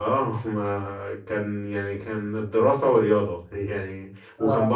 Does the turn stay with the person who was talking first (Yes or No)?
Yes